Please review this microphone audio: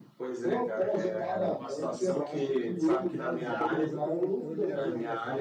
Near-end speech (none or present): present